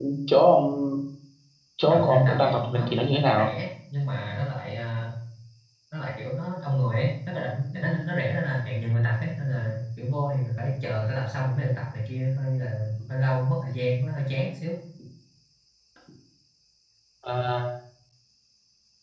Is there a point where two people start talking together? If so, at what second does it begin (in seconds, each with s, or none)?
1.9 s